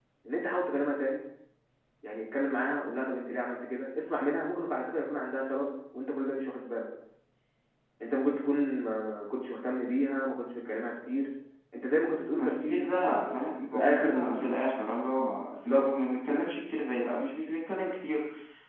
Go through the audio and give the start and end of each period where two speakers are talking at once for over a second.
12.4-14.5

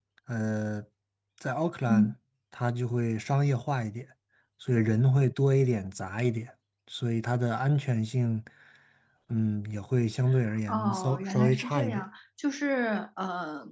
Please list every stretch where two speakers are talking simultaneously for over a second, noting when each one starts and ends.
10.7-12.0

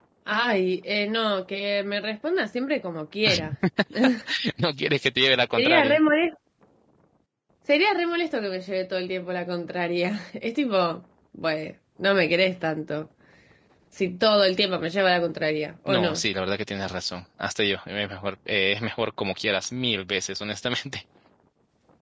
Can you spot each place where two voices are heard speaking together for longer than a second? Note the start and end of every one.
none

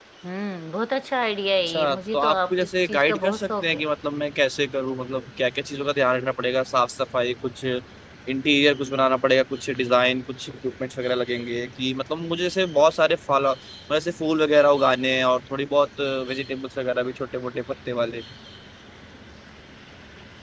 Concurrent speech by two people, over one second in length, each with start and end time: 1.7-3.8

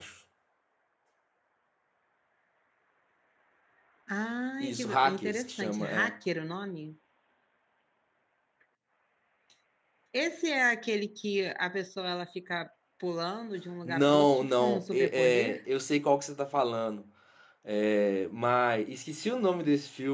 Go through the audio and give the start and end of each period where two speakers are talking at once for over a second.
4.6-6.1, 13.8-15.6

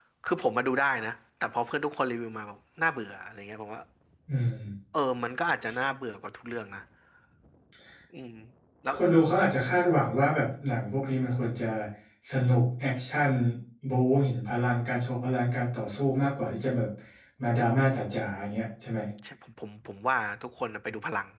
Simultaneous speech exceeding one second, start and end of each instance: none

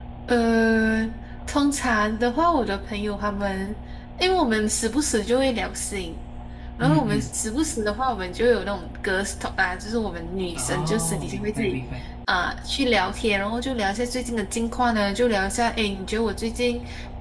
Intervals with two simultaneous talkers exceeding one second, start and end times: 10.5-11.8

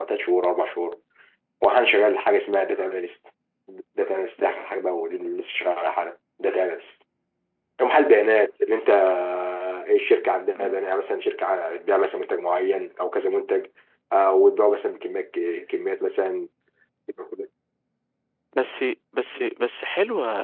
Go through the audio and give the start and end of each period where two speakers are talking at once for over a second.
none

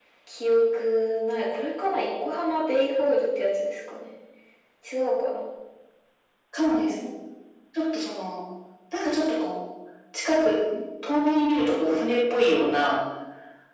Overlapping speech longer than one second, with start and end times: none

